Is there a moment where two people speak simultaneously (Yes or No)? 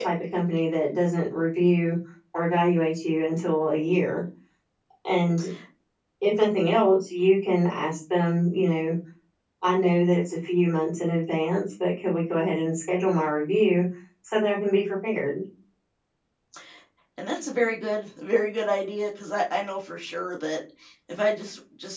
No